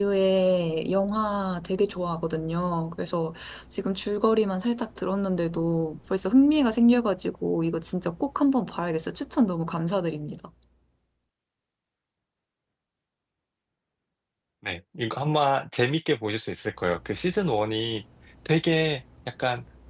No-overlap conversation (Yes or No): Yes